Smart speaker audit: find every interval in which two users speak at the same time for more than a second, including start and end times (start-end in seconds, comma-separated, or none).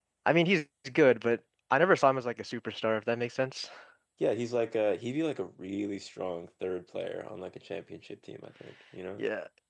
none